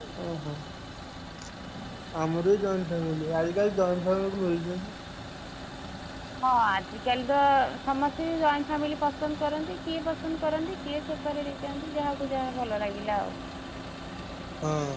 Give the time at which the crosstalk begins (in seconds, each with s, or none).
none